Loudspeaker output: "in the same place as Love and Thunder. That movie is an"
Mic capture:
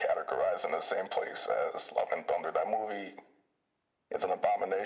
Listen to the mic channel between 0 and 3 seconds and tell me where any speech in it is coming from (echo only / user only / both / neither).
echo only